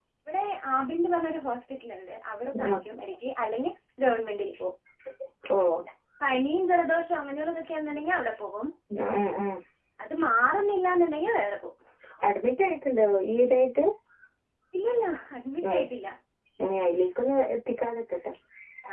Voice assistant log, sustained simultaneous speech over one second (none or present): none